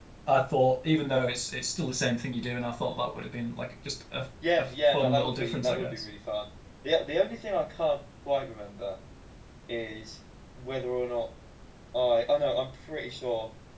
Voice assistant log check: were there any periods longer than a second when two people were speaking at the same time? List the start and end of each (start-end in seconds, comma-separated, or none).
4.6-6.0